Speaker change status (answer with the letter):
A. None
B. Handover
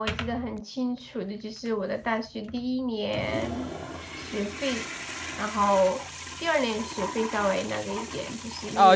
B